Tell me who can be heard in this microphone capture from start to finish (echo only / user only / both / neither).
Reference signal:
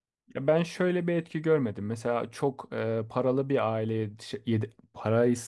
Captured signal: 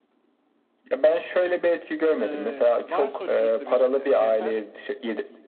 both